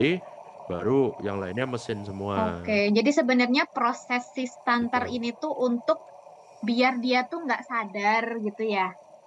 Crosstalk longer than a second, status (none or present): none